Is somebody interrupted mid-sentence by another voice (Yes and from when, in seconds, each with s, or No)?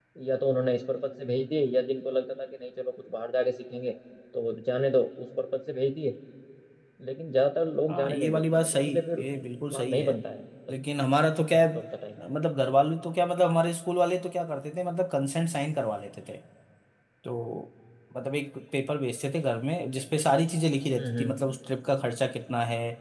Yes, from 7.9 s